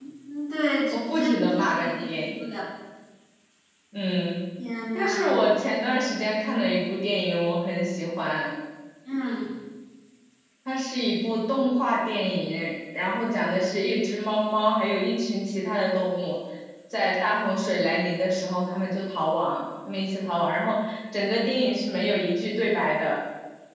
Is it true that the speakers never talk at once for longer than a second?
No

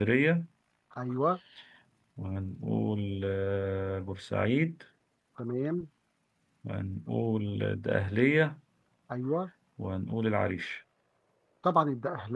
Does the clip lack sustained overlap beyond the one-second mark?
Yes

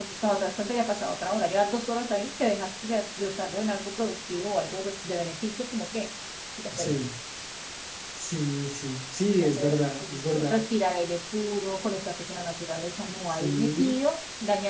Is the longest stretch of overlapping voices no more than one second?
No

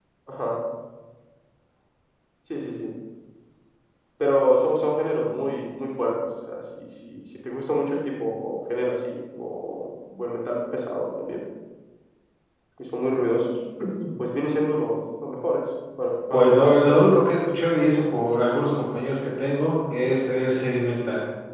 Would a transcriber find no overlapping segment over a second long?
No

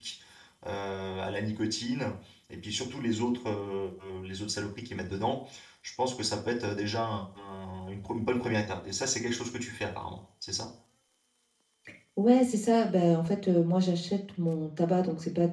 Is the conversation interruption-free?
Yes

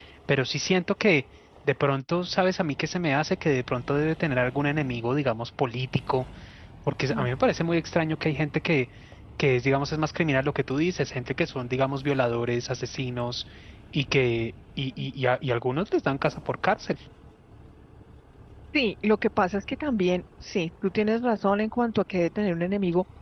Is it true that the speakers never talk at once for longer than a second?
Yes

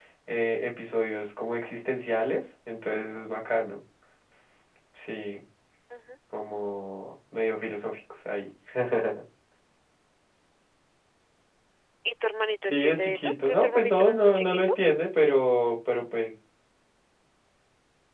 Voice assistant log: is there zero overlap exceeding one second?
No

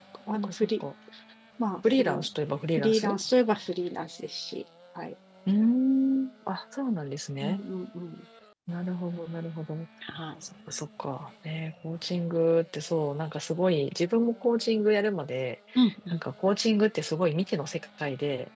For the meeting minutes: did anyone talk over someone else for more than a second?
No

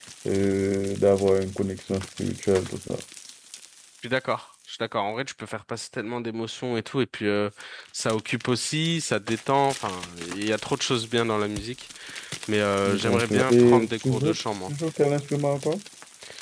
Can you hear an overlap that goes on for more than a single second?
Yes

